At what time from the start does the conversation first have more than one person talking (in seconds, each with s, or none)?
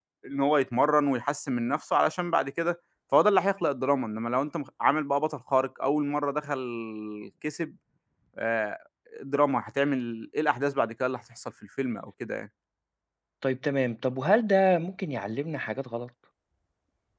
none